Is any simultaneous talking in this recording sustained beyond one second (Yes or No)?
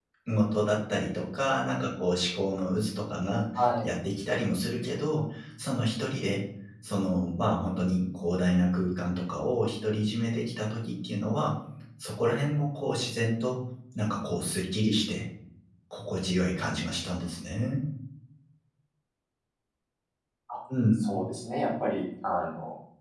No